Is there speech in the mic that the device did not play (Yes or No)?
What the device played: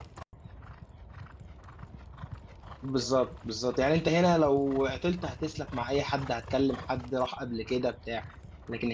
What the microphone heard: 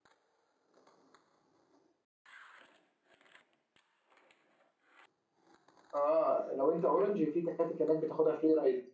Yes